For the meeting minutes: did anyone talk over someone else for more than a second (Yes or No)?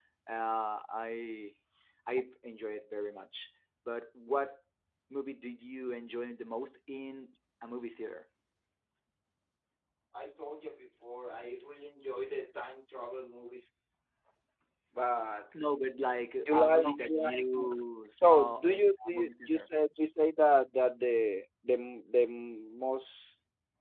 Yes